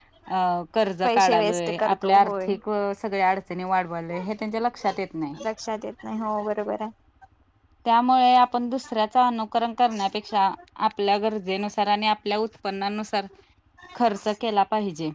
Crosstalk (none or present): present